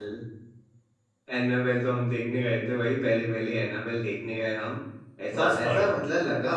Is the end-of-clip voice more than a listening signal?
No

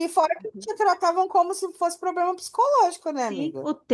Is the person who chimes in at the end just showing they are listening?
No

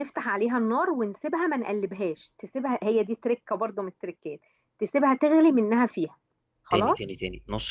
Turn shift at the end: Yes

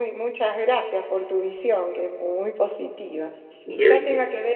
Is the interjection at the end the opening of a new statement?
No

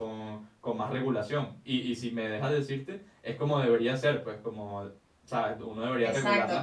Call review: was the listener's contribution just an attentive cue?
No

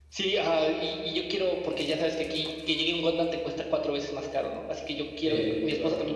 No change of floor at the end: Yes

